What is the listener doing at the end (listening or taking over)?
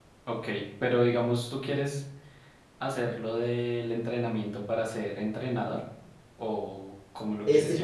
taking over